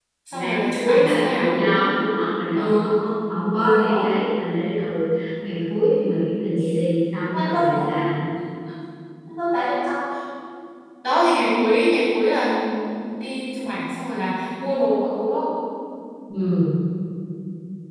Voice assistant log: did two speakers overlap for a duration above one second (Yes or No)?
Yes